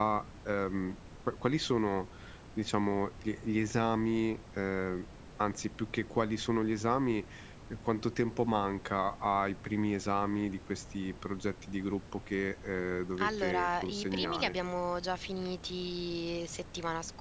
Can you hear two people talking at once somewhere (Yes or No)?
Yes